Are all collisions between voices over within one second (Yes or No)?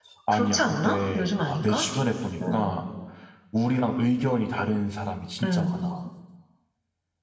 No